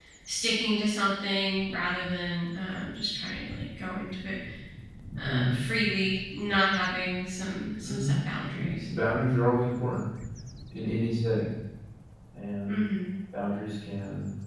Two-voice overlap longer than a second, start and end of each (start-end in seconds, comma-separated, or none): none